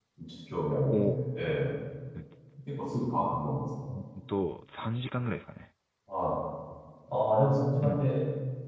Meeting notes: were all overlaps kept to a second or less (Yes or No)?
Yes